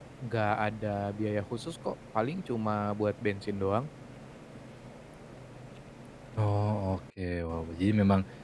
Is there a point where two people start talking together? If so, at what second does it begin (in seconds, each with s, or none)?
none